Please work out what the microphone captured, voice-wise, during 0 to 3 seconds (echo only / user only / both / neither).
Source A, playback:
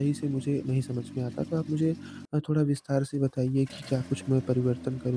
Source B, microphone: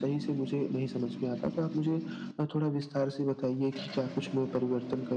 echo only